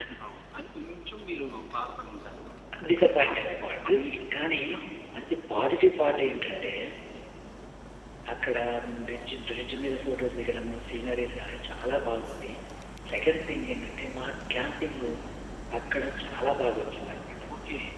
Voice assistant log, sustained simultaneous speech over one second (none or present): none